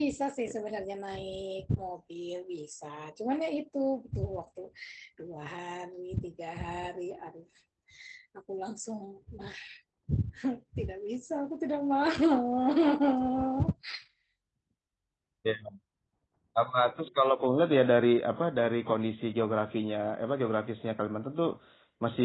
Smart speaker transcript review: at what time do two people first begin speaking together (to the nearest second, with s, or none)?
none